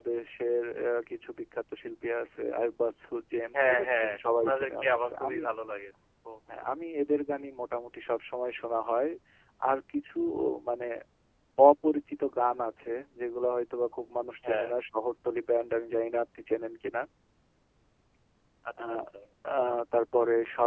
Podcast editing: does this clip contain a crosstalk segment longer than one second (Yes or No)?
Yes